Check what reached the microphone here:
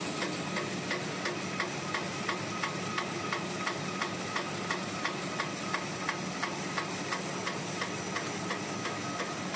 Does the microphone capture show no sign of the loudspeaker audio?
Yes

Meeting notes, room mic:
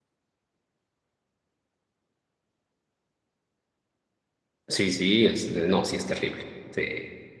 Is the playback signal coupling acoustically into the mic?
No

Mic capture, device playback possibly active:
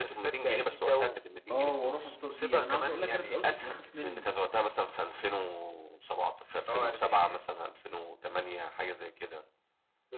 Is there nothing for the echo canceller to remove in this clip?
No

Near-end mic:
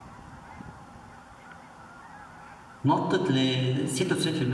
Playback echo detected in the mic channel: No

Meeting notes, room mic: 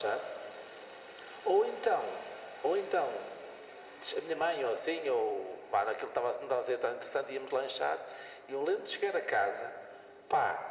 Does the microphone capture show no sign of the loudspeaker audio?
No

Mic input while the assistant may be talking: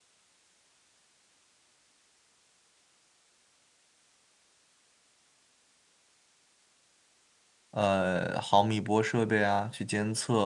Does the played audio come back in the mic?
No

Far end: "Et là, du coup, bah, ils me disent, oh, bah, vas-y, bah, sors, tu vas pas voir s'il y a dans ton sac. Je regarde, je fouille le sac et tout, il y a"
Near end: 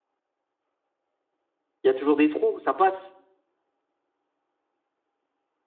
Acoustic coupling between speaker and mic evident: No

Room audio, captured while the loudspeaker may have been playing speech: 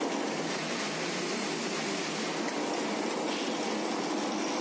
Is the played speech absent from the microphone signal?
Yes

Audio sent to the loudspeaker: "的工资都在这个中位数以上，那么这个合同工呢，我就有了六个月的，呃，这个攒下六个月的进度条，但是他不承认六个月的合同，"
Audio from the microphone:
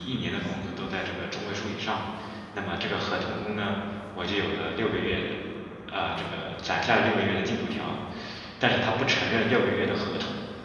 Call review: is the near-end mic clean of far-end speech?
No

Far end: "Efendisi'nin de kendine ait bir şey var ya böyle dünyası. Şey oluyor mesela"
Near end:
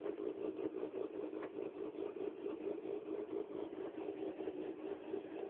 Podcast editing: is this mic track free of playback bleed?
Yes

